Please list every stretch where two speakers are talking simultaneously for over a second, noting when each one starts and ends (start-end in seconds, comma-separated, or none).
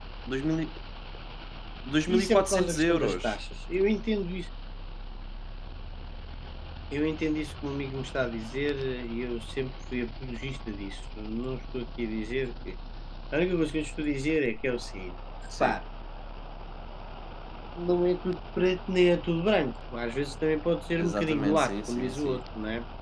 2.2-3.4, 21.0-22.4